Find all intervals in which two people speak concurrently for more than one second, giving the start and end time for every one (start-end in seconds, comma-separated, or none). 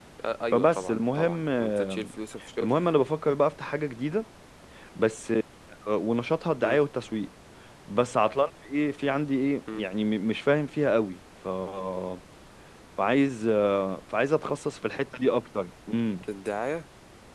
0.5-2.0